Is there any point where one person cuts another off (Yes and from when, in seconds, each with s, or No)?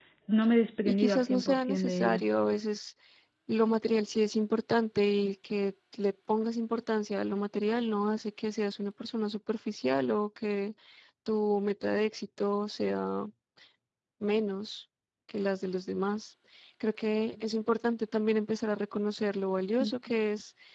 Yes, from 0.8 s